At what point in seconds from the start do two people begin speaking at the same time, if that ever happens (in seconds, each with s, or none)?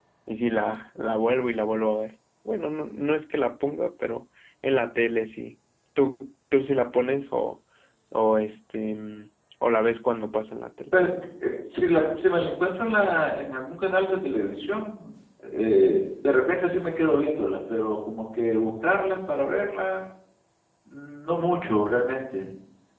none